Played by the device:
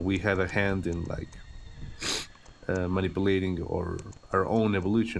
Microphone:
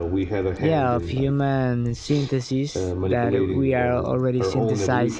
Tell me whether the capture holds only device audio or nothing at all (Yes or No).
No